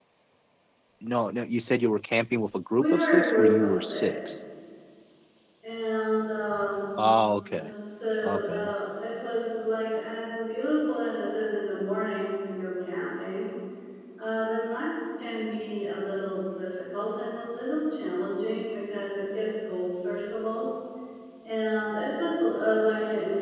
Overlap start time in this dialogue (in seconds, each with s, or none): 2.7 s